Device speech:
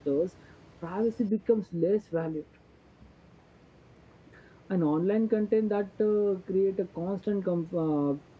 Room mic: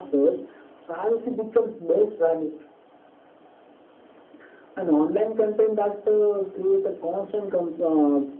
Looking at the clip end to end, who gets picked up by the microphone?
echo only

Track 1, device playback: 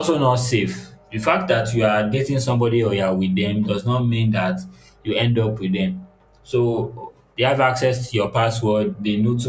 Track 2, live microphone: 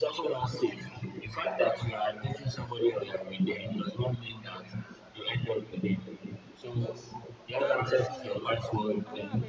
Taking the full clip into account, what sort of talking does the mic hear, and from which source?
both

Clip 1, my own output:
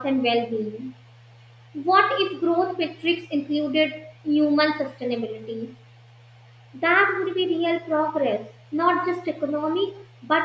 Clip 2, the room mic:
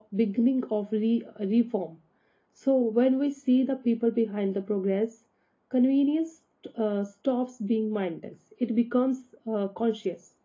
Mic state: user only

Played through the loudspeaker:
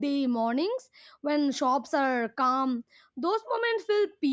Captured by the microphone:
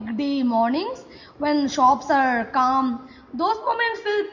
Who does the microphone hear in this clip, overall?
echo only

